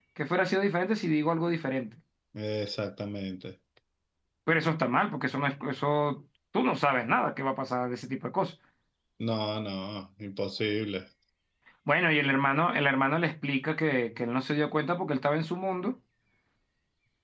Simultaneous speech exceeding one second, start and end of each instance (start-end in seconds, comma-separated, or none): none